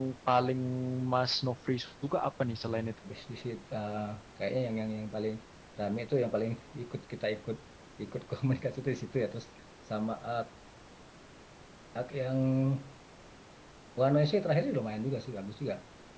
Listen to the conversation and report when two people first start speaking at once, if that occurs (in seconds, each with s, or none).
none